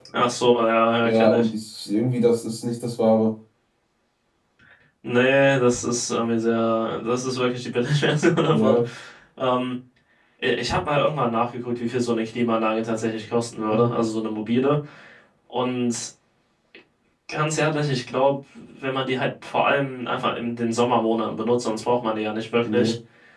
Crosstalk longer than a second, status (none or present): none